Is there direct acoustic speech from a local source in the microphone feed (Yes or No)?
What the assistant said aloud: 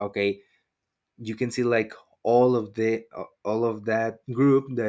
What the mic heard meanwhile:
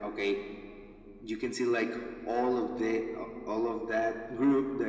No